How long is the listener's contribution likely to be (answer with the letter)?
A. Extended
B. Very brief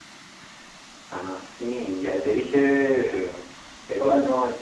B